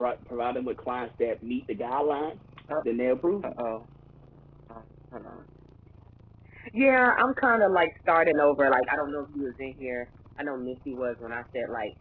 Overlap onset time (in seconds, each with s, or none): none